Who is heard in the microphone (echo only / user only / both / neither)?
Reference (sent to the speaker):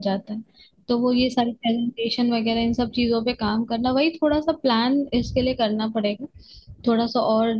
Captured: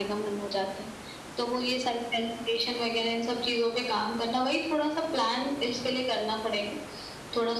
echo only